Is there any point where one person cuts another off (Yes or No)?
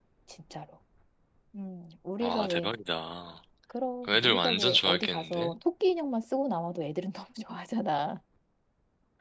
Yes